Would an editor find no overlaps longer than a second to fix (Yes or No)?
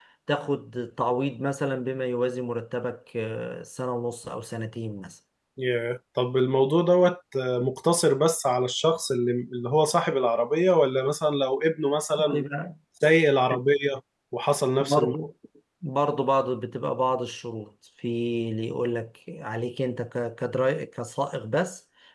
Yes